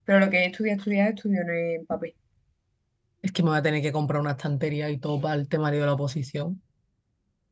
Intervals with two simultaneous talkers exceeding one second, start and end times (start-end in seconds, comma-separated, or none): none